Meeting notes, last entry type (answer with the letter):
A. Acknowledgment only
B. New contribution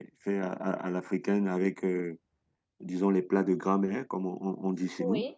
B